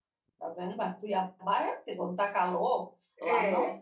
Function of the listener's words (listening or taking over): listening